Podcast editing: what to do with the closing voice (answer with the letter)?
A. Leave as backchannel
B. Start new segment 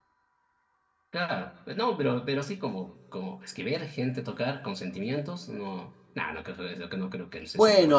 B